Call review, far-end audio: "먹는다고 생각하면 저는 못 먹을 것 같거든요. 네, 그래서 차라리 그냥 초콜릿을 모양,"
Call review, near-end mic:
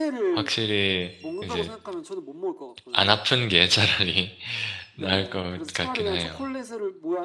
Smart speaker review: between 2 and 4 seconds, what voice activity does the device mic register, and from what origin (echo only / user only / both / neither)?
both